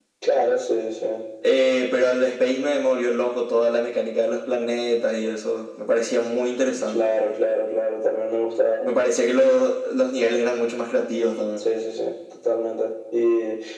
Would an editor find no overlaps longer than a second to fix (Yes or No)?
Yes